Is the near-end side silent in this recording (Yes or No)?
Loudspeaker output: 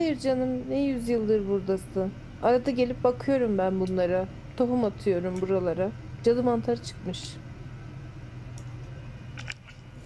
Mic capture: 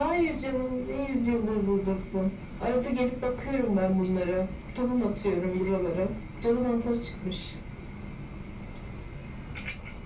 Yes